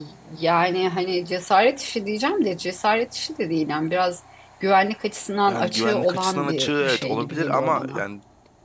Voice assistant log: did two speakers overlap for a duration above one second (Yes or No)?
Yes